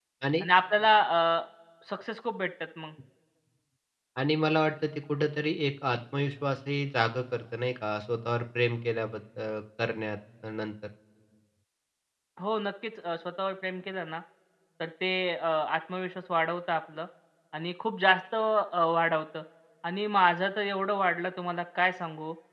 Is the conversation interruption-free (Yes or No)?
Yes